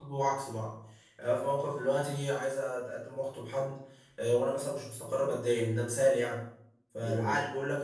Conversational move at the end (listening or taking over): listening